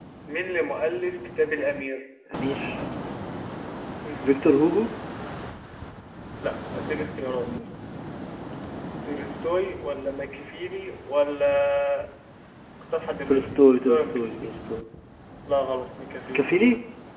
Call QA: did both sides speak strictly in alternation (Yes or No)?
No